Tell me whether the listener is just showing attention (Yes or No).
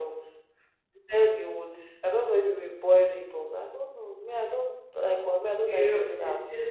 No